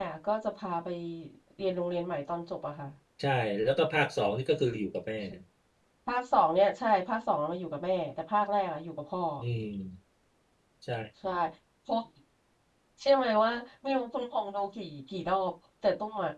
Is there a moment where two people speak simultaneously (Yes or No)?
No